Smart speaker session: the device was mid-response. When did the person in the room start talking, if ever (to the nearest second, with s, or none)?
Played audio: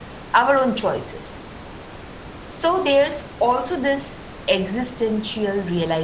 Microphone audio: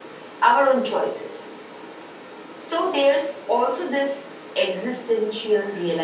none